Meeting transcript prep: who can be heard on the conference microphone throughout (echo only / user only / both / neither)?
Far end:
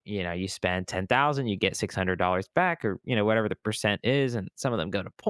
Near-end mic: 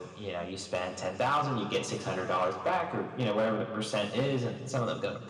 echo only